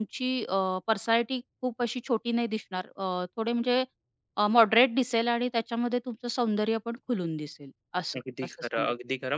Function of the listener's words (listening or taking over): taking over